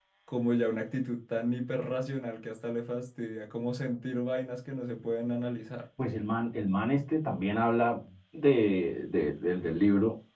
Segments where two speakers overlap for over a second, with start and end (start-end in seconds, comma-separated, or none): none